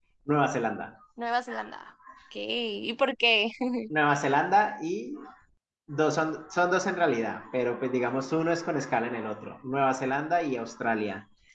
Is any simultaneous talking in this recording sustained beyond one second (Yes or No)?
No